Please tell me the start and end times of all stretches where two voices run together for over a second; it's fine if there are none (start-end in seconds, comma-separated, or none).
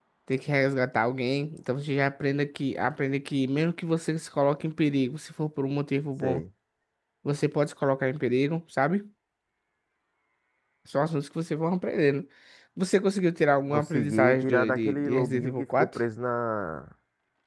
13.7-15.9